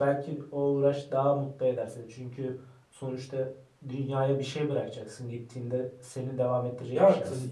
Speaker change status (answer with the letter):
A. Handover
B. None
A